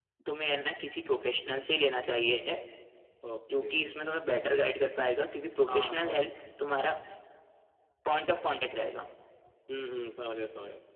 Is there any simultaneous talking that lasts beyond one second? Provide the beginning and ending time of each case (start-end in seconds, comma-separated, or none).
none